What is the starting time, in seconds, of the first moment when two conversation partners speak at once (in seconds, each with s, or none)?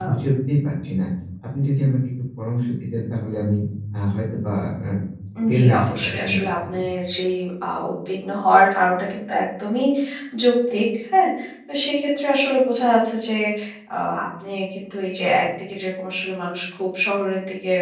5.5 s